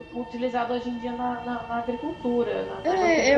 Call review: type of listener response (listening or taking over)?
taking over